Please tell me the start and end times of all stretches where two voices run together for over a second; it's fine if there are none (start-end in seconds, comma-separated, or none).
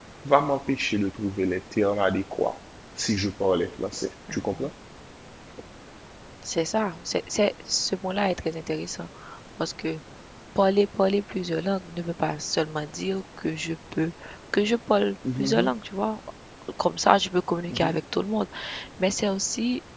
none